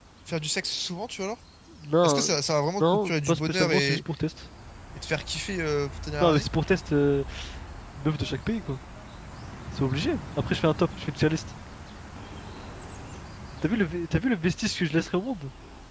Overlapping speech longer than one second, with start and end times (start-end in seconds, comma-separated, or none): 2.8-4.0